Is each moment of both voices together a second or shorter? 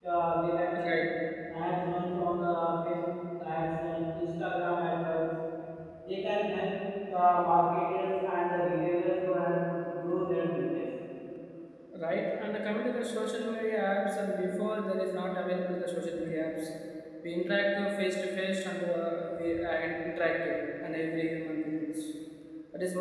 Yes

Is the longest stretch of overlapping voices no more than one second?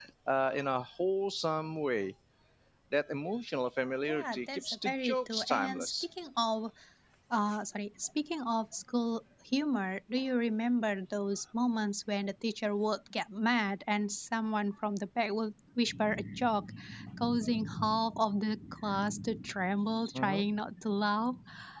No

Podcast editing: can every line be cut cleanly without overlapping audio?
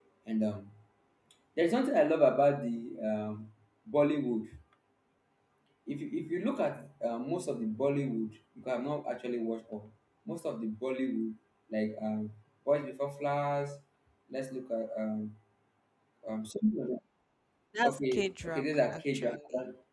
No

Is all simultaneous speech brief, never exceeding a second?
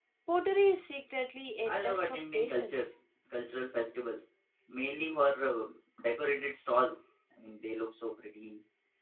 No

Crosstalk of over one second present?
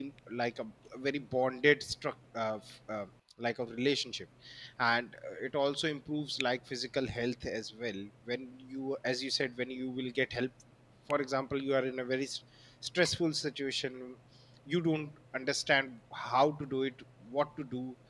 No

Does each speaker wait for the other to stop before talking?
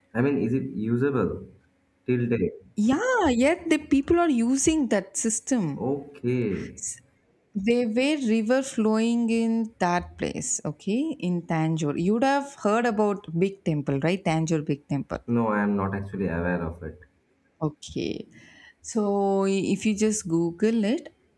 Yes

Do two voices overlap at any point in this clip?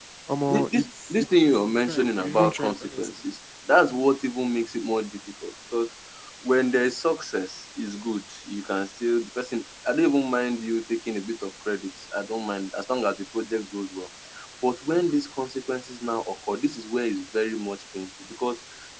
Yes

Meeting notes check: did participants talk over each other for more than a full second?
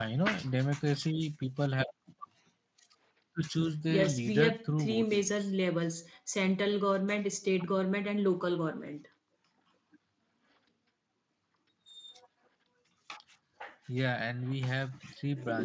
Yes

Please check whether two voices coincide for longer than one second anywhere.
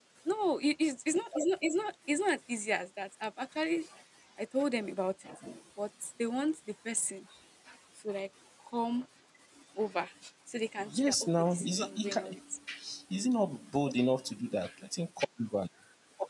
Yes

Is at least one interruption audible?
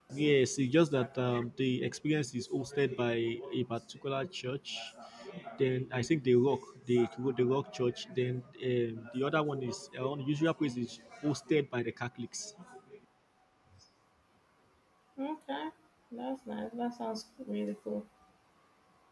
No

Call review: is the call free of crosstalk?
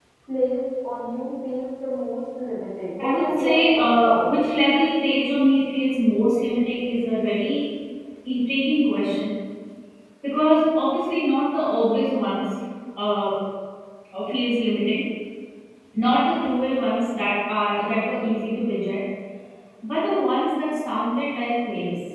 No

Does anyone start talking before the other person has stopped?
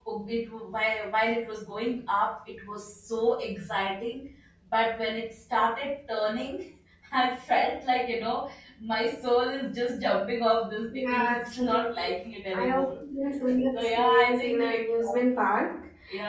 Yes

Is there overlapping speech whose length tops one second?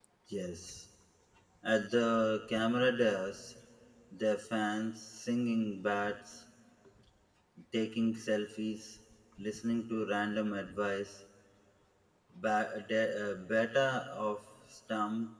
No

